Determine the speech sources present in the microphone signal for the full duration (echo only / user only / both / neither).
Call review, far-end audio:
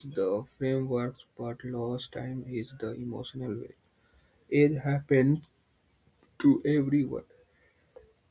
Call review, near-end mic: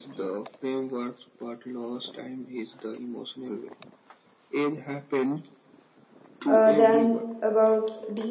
both